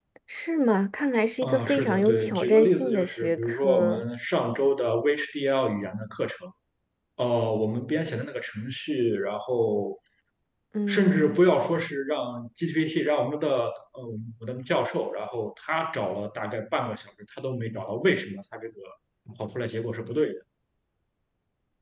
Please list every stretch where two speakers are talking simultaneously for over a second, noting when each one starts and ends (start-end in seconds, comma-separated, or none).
1.4-4.0